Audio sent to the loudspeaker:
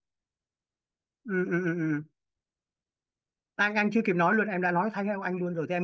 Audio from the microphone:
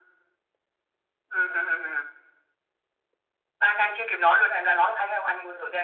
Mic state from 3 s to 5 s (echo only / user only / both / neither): echo only